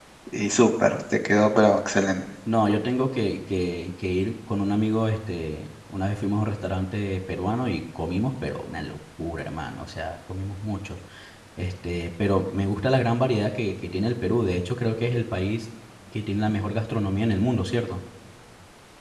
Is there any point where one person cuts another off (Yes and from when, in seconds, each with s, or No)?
No